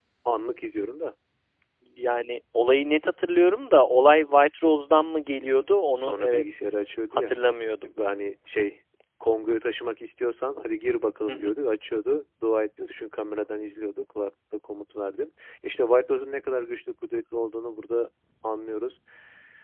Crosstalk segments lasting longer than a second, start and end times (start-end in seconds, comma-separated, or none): none